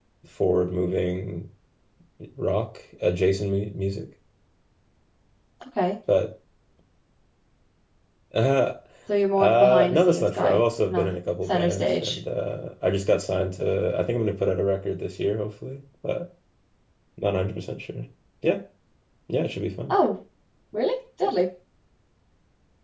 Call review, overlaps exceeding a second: present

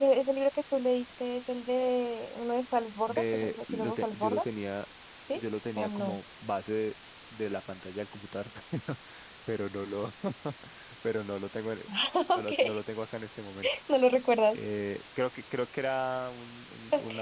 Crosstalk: present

